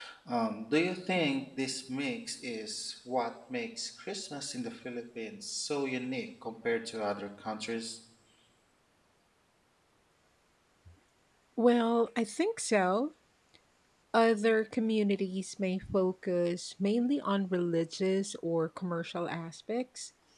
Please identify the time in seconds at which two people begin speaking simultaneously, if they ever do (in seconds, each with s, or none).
none